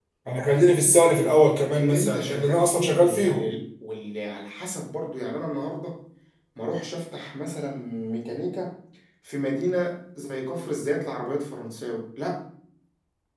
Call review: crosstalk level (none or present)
present